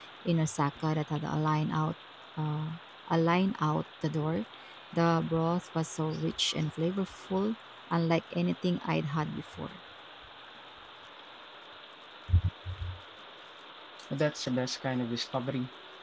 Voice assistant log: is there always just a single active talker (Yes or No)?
Yes